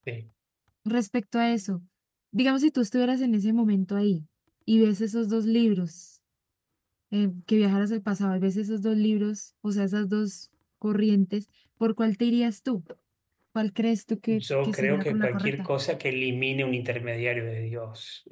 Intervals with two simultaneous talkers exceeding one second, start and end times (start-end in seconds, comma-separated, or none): 14.3-15.7